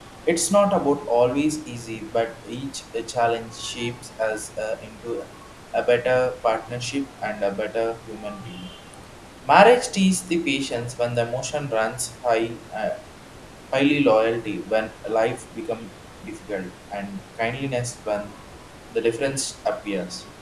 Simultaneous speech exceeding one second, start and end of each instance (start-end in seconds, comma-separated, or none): none